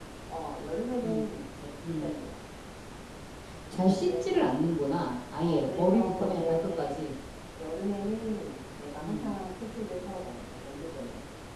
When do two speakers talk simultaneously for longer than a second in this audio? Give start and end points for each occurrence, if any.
5.4-7.0

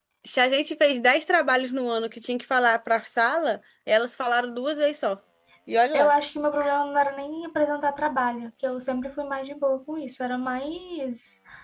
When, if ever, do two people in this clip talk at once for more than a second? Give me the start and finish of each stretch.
none

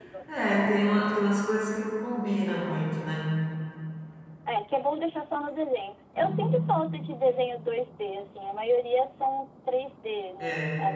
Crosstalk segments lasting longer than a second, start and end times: none

